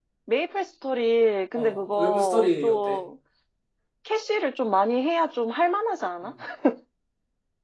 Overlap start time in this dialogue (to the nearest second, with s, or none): 2 s